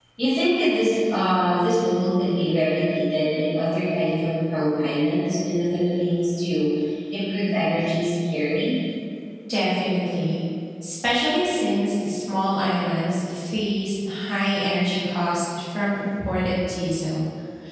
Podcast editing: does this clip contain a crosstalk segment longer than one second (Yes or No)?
No